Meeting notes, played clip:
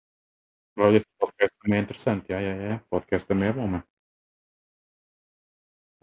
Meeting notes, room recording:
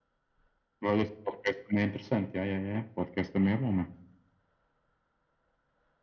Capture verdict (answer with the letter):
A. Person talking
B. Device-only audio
B